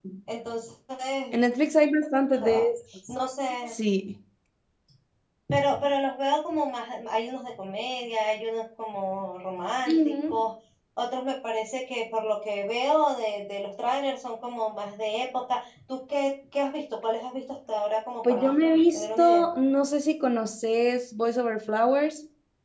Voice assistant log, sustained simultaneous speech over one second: none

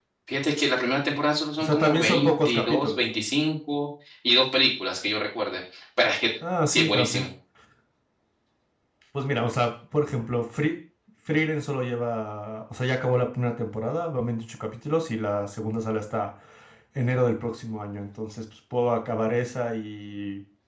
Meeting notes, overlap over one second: present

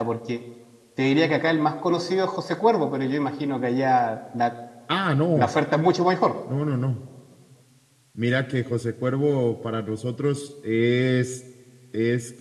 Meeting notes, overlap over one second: none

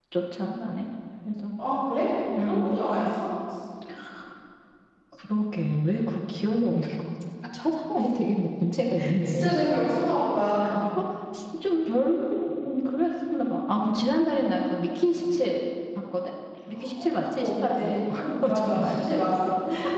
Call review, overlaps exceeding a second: present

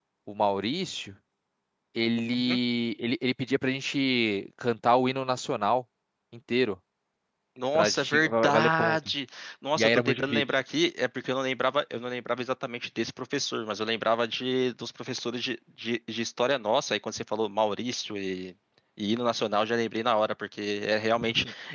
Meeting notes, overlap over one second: present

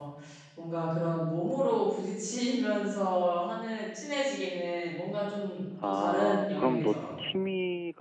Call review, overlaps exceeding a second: present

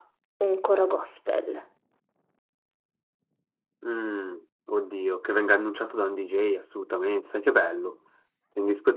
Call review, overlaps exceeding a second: none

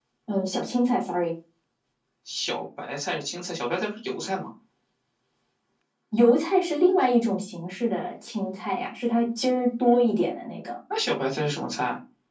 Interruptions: none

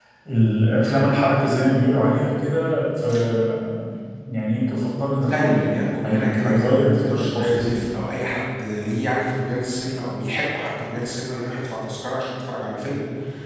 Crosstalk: present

